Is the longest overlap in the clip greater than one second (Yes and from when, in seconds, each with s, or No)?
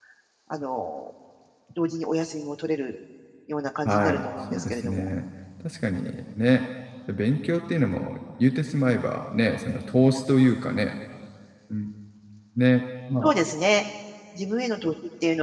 Yes, from 3.8 s